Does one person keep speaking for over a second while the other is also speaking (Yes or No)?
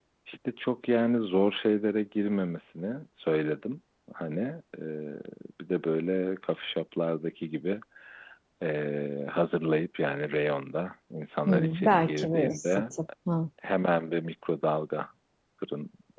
Yes